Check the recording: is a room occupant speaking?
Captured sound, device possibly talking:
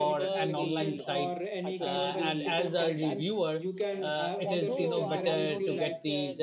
Yes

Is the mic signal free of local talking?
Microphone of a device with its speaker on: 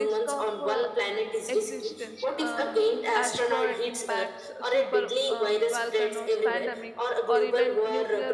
No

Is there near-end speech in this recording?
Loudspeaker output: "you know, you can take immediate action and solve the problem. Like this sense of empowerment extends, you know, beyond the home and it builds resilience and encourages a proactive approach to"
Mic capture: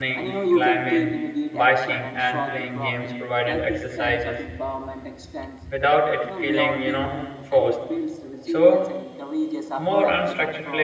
Yes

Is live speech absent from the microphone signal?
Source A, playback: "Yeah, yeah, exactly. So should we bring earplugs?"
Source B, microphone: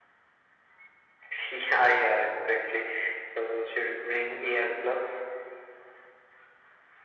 Yes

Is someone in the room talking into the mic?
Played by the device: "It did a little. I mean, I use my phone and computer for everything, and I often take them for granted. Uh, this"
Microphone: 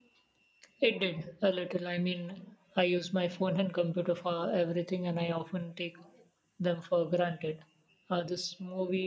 No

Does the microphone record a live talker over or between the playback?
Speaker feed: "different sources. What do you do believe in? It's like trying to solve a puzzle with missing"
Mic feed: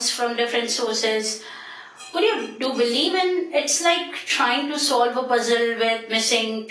No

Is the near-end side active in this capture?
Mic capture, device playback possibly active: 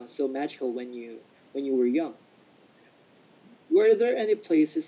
No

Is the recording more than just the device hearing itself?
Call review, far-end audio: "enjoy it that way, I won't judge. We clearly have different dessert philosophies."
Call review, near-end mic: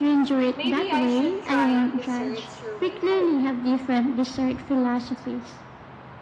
Yes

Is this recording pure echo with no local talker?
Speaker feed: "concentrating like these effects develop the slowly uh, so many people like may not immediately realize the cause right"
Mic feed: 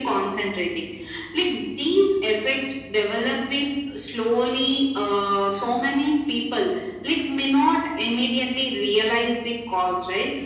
Yes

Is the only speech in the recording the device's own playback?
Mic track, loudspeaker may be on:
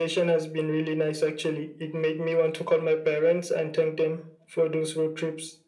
Yes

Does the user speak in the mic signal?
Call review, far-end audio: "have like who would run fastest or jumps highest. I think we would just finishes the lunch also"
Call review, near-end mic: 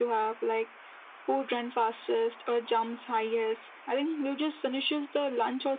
No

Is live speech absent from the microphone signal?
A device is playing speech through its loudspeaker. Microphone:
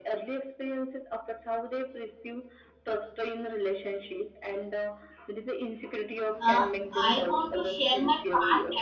No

